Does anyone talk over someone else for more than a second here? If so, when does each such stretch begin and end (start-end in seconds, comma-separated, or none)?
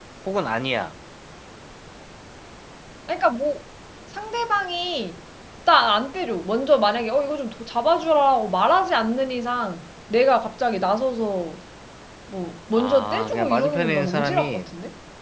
12.8-14.7